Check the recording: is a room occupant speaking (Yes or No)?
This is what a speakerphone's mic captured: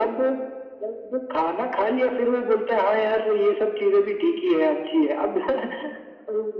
No